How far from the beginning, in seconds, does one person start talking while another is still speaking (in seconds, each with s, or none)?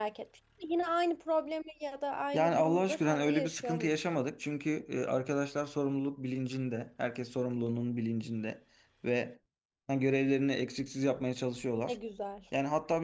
2.3 s